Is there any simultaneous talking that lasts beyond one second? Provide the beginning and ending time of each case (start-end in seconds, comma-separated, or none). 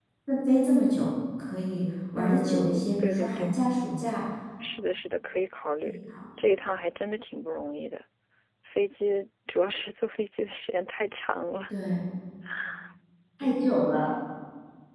2.2-3.5